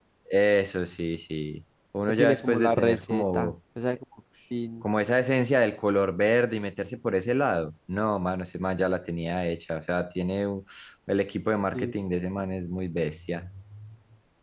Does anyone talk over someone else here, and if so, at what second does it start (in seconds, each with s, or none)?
2.1 s